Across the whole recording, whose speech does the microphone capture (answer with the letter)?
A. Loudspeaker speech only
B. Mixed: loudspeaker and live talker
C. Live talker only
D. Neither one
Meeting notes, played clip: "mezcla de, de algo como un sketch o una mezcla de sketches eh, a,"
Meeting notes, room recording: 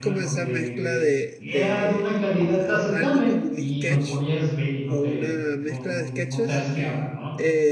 B